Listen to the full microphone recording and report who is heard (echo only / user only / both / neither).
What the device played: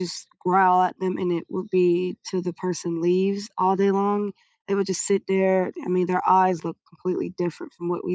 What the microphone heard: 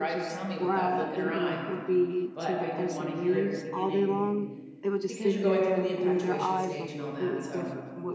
both